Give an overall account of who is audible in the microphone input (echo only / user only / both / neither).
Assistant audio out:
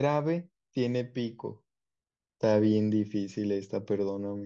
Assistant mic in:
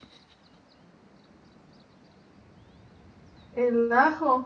user only